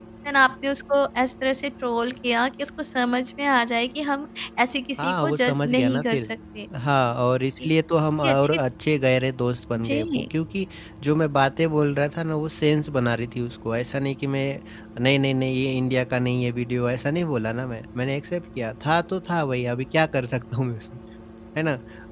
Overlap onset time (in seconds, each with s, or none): 5.0 s